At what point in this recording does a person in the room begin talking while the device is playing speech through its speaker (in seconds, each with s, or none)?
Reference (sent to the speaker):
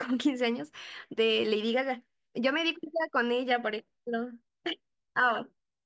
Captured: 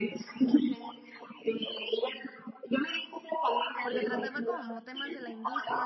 3.8 s